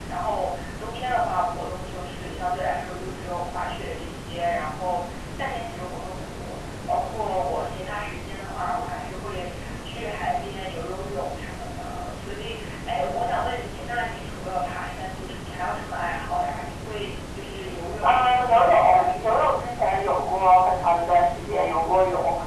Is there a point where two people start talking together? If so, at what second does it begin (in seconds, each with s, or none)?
18.0 s